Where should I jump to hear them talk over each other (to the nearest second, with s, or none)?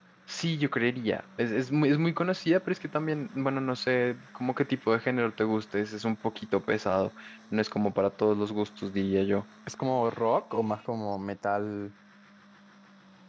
none